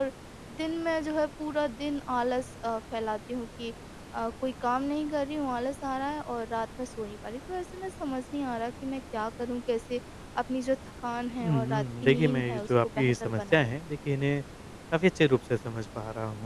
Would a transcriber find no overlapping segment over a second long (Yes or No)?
No